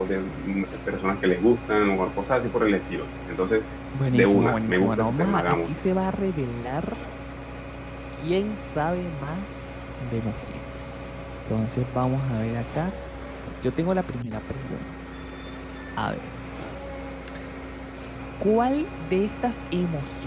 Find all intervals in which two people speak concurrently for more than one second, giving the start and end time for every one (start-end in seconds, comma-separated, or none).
4.1-5.8